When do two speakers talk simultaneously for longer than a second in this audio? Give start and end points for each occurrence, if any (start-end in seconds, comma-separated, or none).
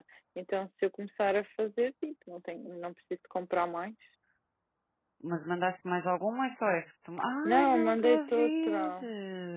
7.4-8.9